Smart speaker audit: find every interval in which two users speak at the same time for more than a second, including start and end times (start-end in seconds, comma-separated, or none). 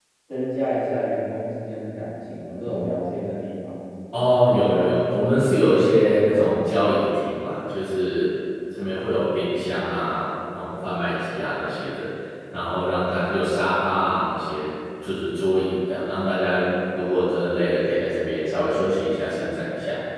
none